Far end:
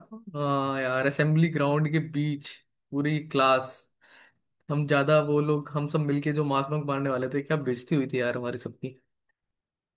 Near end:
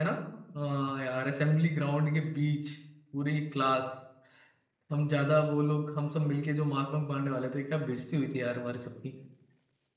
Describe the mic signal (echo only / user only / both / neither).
echo only